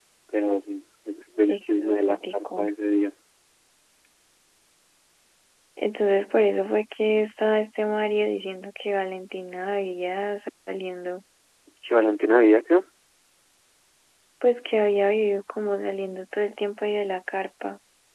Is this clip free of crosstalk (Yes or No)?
No